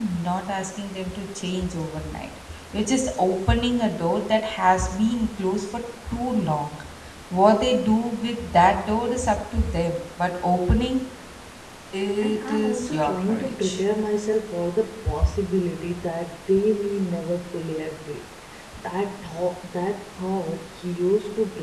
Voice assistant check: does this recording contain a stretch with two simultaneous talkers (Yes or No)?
Yes